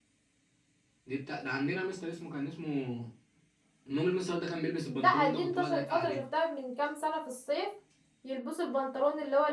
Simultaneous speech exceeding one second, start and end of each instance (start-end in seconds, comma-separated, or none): 4.9-6.2